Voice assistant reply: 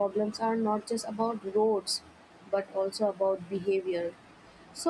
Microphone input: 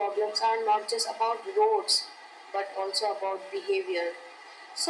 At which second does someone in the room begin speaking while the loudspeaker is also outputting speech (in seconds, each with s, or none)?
none